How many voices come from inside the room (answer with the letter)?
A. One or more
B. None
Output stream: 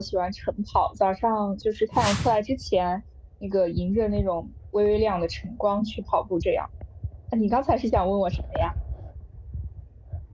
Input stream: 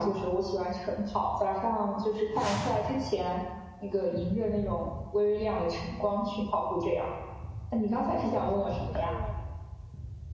A